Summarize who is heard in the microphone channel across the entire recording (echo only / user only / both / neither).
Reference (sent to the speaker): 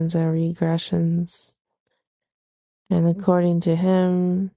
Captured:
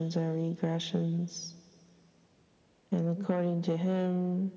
echo only